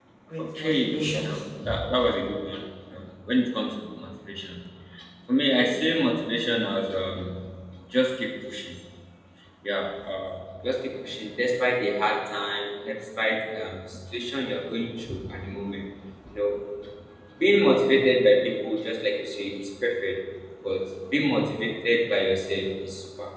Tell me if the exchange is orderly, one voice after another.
No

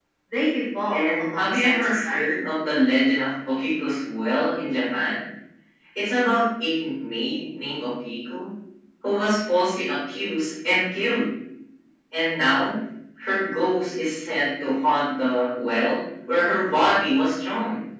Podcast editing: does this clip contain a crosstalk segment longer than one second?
Yes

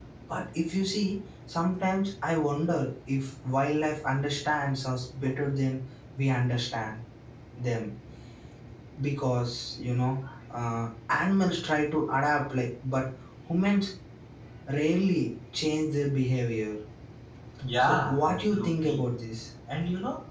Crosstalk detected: Yes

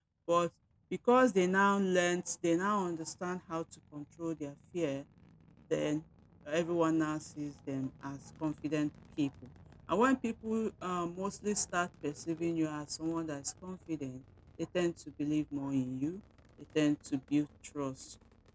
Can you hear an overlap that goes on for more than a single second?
No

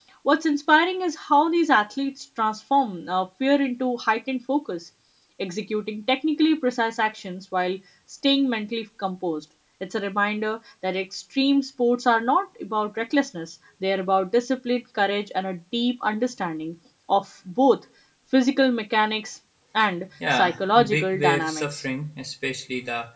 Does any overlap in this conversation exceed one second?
Yes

